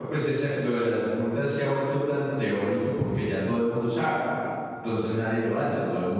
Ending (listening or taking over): listening